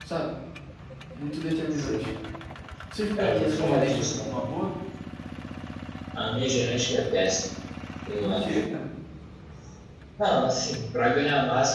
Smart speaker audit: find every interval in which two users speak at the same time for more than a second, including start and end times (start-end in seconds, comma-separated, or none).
3.2-4.4